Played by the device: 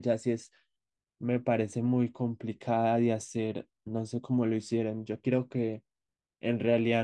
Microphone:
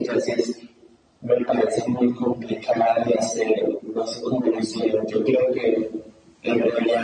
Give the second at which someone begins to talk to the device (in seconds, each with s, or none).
none